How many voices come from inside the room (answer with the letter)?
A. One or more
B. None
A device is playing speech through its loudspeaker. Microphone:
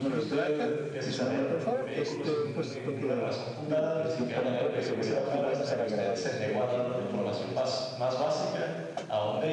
A